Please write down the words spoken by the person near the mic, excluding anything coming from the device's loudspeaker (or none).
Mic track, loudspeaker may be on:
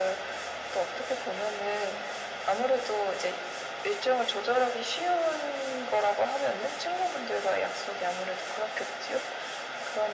none